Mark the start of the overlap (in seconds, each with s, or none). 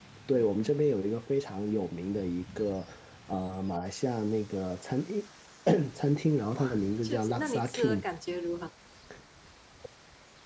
6.5 s